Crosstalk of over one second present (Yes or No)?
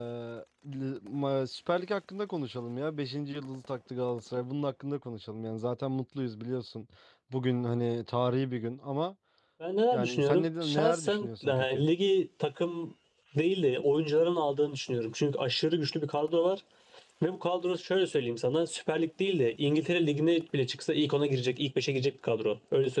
Yes